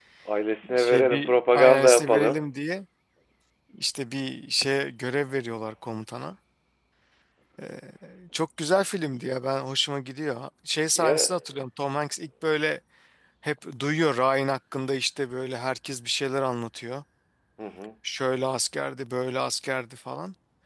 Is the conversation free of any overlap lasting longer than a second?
No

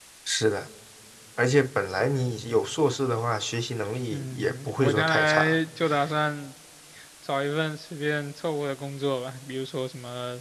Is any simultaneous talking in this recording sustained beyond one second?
Yes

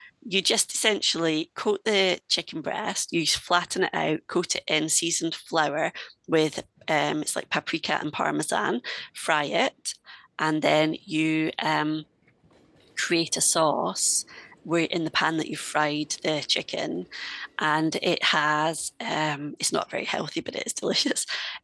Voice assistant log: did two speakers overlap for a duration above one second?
No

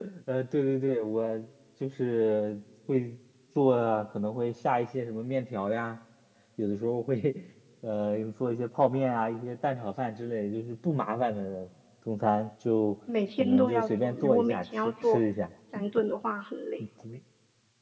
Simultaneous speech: Yes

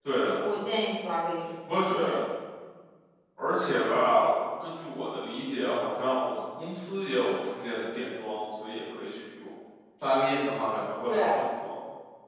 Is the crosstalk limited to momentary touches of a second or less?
Yes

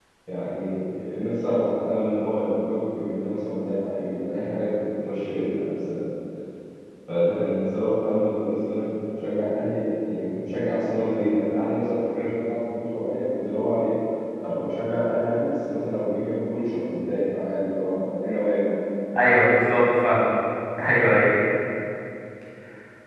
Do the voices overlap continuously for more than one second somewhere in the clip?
No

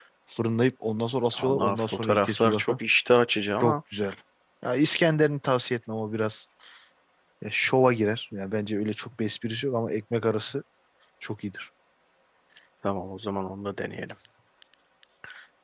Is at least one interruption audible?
Yes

